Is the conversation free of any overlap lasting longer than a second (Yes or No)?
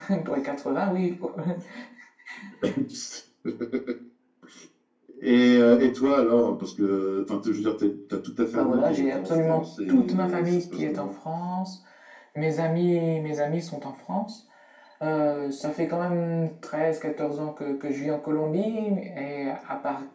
No